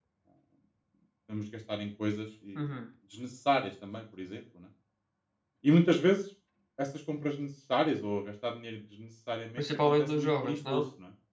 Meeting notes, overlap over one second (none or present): present